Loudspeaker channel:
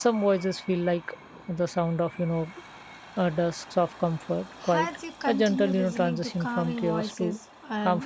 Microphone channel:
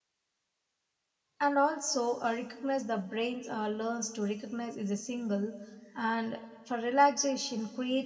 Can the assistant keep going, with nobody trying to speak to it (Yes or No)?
No